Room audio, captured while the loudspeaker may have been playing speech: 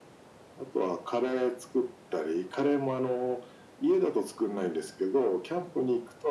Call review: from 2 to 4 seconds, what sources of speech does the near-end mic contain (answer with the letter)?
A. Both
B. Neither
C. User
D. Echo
D